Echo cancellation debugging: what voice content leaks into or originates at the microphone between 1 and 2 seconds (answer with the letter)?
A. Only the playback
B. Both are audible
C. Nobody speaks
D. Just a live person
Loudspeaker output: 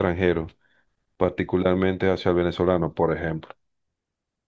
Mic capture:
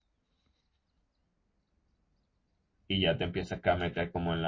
C